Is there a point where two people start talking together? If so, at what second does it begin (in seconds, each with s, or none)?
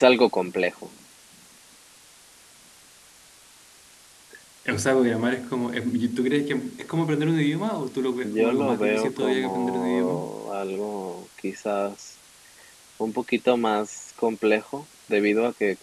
8.2 s